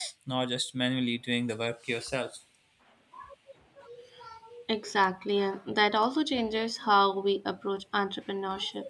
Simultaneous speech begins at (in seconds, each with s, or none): none